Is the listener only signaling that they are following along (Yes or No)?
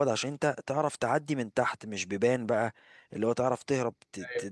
Yes